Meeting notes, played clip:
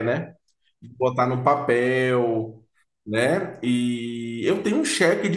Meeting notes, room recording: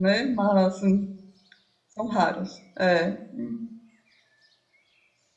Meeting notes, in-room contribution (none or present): present